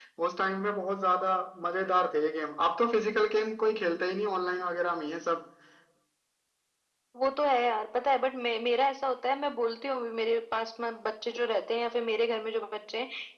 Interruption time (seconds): none

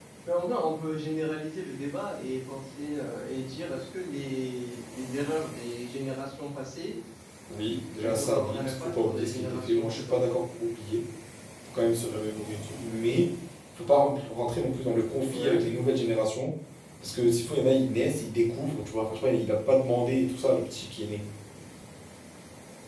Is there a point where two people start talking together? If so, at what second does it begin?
8.0 s

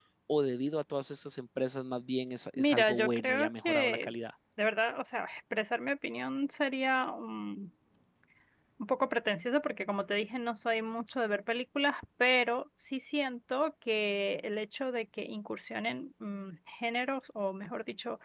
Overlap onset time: 2.6 s

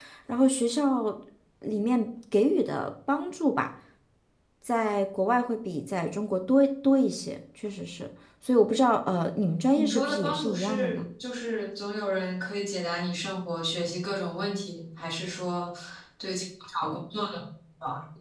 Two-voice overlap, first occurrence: 9.8 s

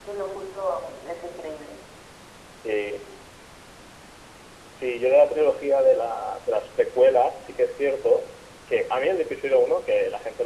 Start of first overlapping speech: none

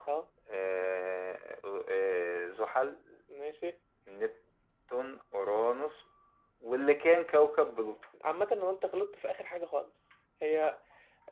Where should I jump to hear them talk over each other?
none

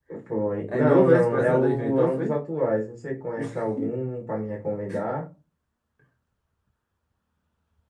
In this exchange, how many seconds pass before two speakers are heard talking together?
0.8 s

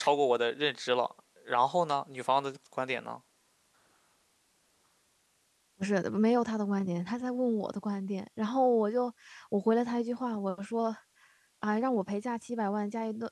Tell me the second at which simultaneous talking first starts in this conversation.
none

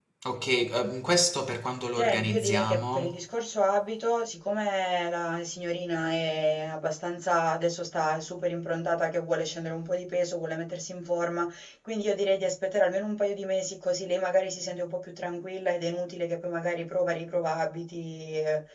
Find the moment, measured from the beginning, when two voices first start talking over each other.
2.0 s

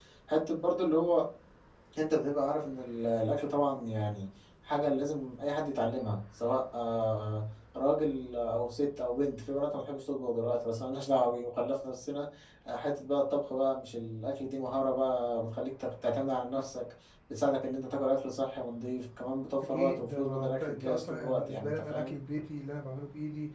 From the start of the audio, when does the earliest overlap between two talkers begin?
19.6 s

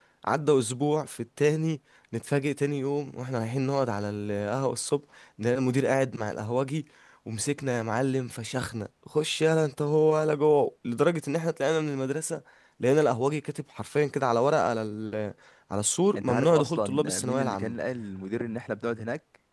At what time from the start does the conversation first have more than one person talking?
16.2 s

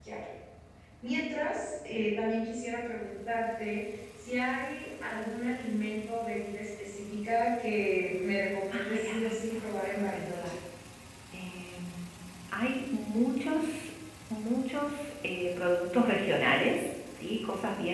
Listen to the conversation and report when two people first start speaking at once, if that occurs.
8.7 s

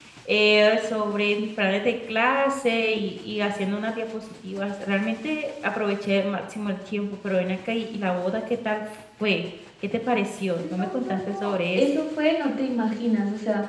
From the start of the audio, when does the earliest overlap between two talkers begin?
10.6 s

